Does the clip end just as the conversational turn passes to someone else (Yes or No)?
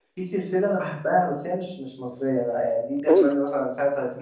No